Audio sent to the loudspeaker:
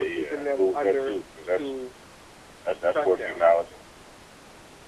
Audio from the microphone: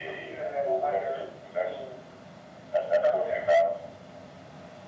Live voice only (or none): none